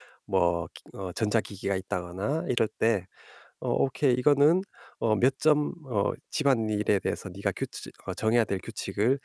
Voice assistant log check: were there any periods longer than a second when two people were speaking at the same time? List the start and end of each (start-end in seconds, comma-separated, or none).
none